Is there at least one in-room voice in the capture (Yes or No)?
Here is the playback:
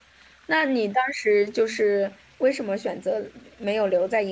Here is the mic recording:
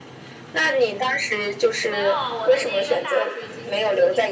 Yes